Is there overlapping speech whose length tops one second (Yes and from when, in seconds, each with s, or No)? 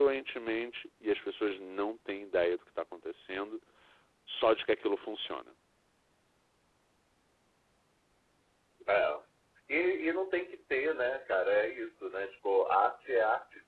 No